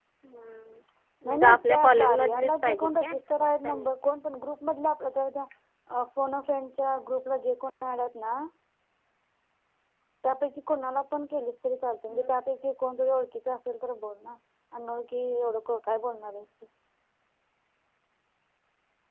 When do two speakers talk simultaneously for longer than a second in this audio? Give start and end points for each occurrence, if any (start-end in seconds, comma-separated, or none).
1.3-3.9